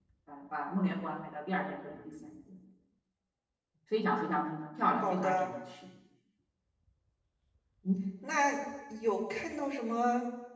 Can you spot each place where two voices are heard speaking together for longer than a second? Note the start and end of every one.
none

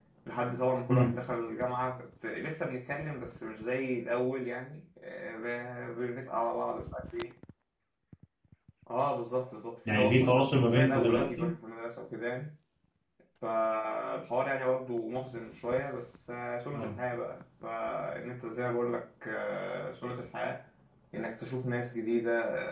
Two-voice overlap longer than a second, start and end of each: 9.9-11.5

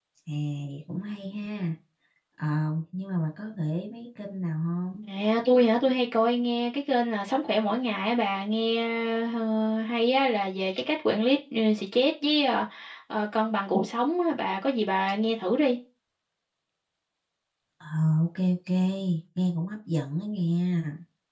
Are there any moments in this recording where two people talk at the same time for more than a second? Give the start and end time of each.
none

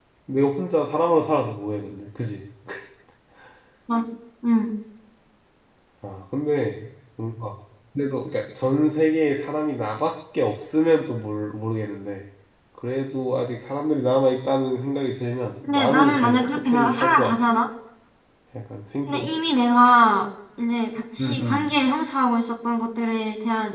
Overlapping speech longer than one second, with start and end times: 15.6-17.4

